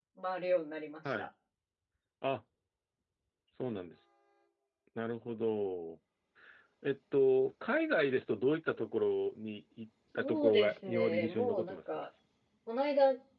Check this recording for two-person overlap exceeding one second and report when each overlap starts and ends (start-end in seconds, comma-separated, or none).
10.2-12.0